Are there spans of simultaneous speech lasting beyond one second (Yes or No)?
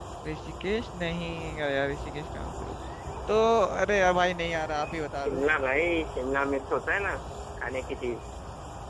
No